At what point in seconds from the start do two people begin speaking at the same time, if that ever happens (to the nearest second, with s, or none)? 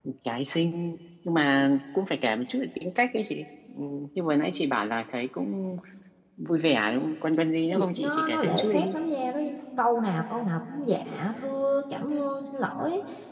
8 s